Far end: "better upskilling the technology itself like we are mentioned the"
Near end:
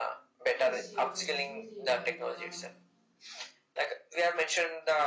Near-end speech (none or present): present